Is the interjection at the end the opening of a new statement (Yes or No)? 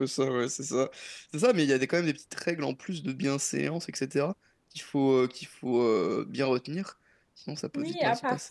Yes